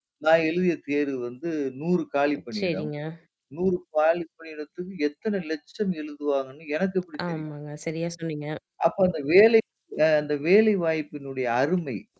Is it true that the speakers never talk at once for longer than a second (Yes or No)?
Yes